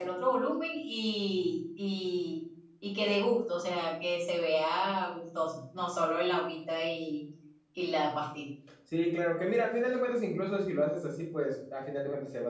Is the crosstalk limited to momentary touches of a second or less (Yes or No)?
Yes